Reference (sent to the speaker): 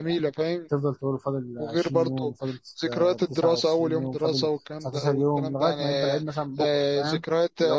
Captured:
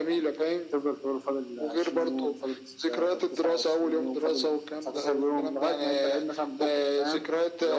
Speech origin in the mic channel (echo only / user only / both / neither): echo only